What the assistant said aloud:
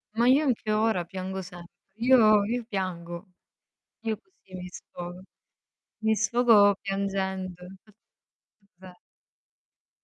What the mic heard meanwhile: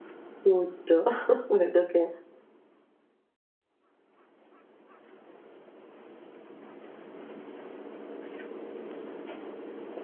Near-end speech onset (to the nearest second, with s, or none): 0 s